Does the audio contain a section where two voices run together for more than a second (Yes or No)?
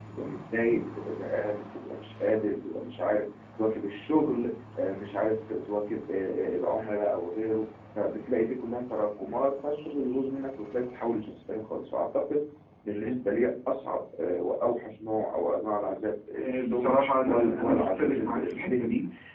Yes